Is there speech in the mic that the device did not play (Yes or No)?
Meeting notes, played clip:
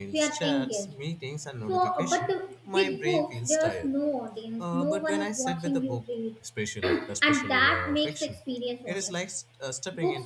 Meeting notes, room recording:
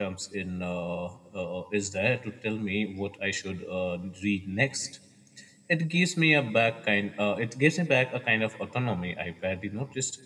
Yes